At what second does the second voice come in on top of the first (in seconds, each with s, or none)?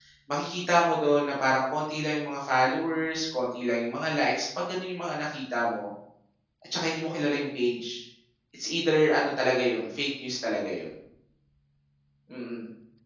none